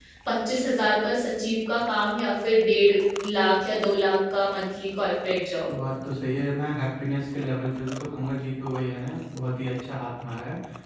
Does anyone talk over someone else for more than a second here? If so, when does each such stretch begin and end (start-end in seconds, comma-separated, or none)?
none